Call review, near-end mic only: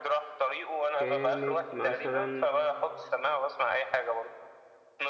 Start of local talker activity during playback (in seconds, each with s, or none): 0.9 s